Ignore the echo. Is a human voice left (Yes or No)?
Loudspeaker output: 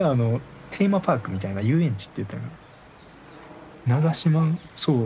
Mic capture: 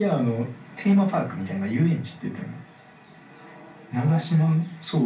No